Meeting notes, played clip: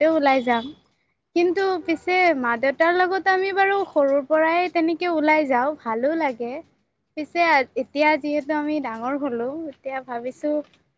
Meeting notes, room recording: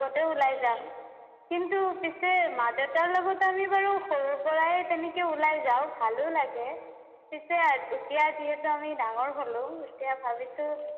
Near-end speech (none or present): none